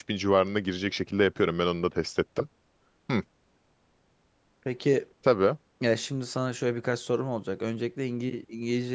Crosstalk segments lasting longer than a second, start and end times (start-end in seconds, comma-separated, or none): none